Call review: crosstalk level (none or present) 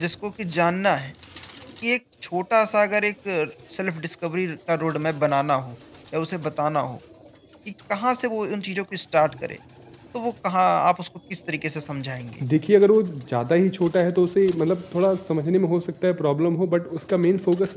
none